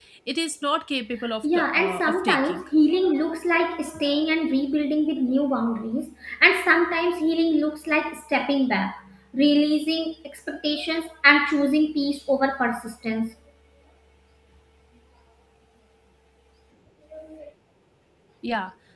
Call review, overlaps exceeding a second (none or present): present